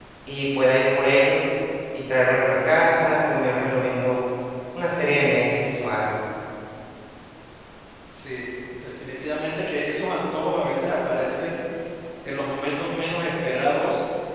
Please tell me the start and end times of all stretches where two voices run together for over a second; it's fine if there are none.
none

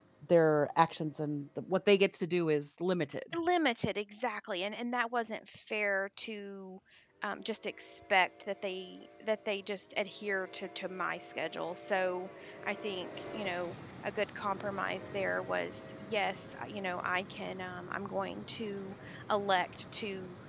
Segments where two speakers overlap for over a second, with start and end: none

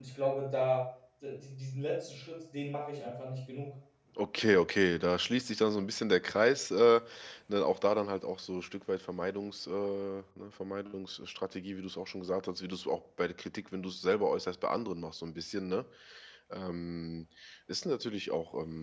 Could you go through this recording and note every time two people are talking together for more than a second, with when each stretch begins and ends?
none

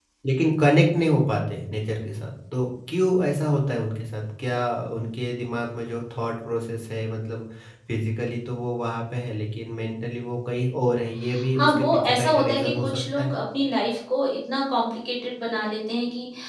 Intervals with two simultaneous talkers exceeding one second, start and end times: 11.6-13.3

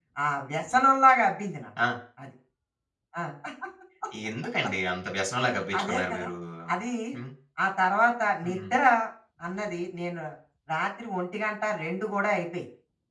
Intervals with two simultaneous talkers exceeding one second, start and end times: none

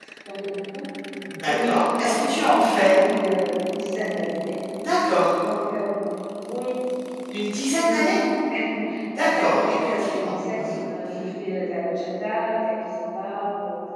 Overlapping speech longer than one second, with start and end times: 1.5-2.9, 9.2-10.8

